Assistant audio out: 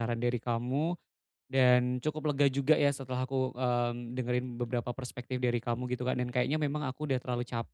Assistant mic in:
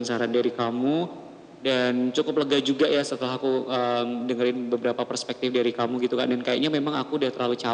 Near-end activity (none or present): none